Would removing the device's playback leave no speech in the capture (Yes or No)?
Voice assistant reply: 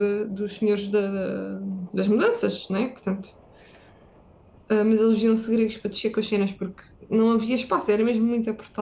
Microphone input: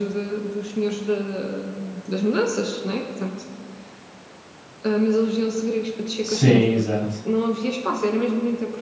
No